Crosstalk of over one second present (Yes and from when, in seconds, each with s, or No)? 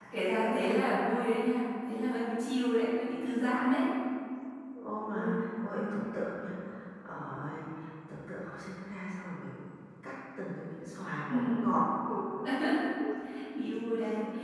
No